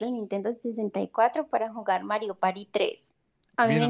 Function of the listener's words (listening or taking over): taking over